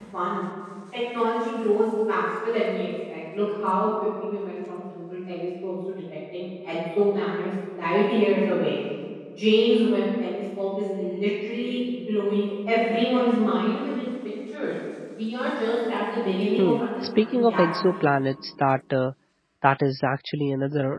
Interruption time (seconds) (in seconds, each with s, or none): 16.6 s